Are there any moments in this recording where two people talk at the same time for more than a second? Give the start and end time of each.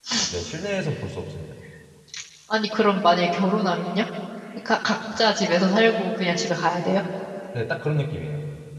none

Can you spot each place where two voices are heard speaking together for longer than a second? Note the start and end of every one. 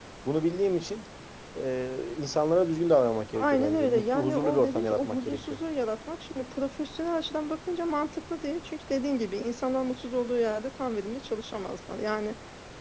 3.4-5.6

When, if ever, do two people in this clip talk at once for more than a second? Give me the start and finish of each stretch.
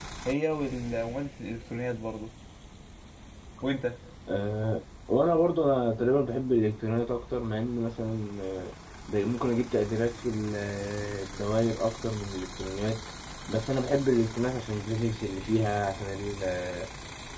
none

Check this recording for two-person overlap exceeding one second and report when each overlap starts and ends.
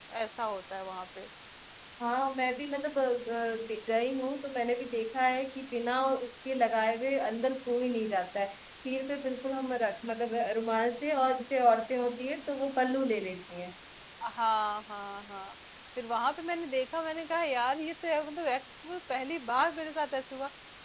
none

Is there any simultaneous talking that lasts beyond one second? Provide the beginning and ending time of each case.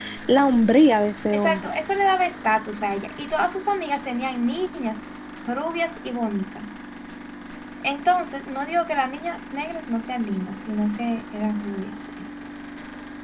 none

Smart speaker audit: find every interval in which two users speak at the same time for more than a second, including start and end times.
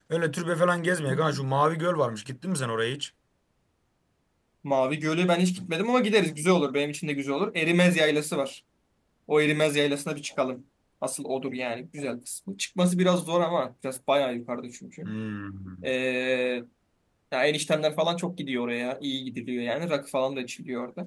none

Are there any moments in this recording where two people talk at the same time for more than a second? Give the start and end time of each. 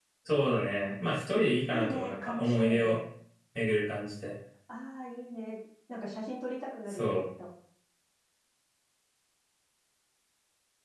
1.7-3.0

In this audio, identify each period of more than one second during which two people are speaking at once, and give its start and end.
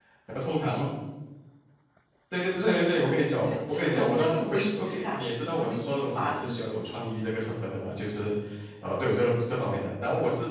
3.4-6.5

